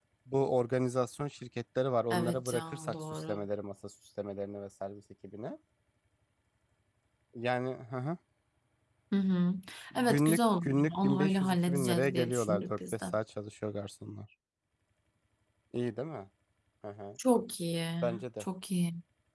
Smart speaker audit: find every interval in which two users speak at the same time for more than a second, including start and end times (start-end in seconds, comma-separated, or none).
2.1-3.4, 9.9-13.0